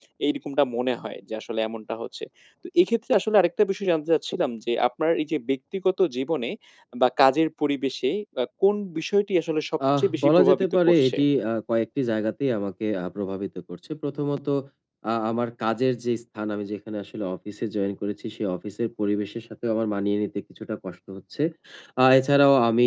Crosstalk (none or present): present